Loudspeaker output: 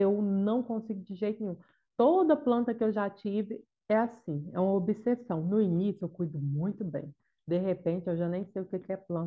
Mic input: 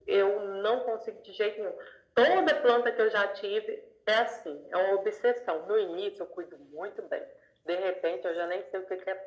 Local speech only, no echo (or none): none